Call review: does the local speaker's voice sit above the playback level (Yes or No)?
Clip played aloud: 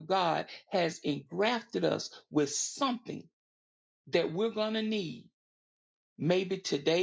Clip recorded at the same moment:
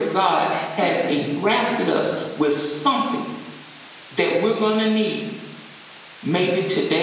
No